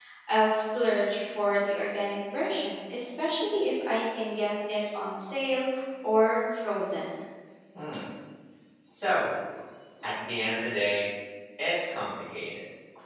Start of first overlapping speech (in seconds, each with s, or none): none